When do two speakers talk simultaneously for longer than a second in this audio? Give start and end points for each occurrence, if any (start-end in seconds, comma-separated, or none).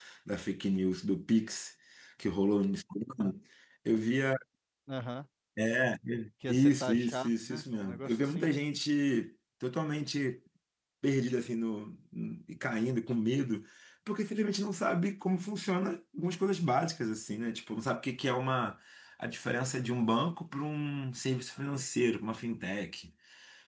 6.5-8.5